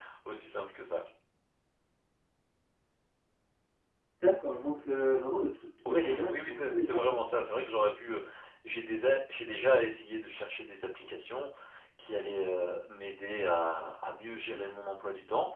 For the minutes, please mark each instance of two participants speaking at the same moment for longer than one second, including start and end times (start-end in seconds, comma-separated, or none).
5.8-7.2